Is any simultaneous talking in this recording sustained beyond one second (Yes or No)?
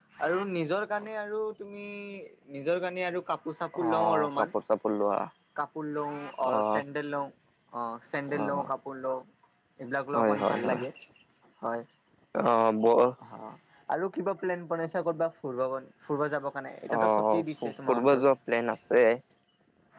Yes